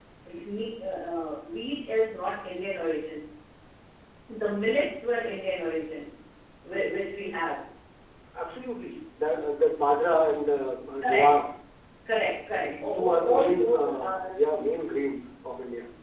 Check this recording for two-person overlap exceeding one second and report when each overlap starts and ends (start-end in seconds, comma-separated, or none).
12.6-14.2